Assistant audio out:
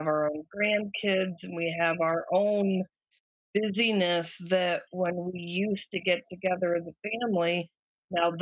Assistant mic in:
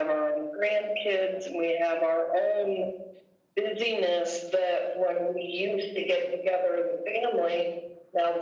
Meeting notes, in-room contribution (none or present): none